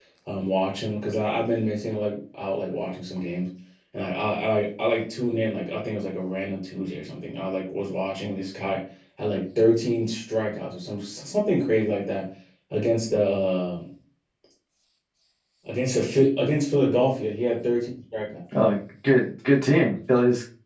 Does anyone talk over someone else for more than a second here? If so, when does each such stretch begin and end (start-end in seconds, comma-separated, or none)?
none